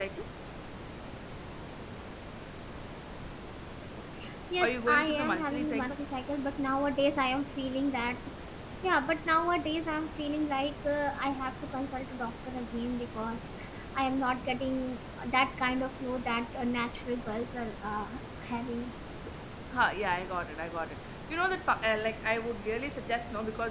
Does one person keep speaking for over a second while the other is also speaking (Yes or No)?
Yes